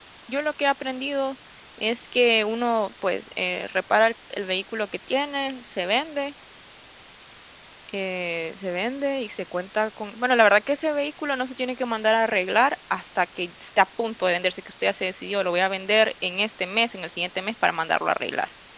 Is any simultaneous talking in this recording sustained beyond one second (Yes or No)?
No